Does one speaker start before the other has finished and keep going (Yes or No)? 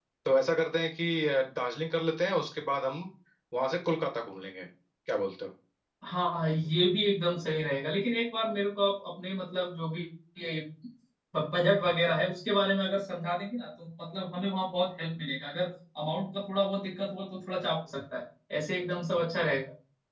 No